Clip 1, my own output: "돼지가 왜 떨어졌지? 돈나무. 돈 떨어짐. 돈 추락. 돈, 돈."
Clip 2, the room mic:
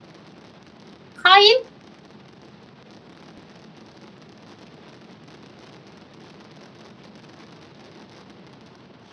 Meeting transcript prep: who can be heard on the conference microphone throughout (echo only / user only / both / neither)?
user only